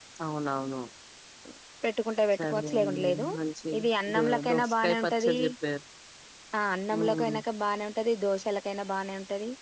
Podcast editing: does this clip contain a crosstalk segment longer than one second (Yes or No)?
Yes